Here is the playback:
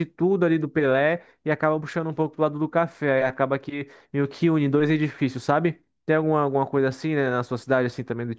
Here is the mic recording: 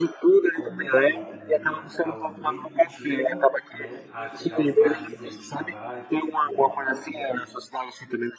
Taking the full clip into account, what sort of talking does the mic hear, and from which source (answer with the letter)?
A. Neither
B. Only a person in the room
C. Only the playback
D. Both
D